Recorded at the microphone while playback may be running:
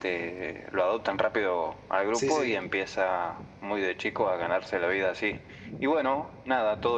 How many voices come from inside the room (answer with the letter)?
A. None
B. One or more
B